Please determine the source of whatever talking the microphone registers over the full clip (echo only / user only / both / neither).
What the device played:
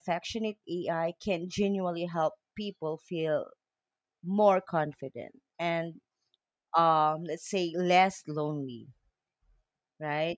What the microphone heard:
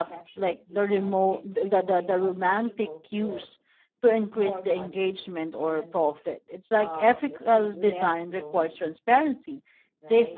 both